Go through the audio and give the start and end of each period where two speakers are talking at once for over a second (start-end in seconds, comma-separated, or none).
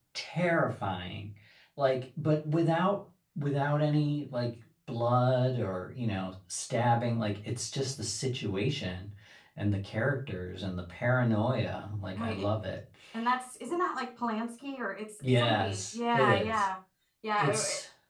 15.4-16.6